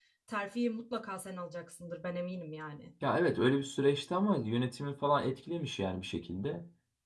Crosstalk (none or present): none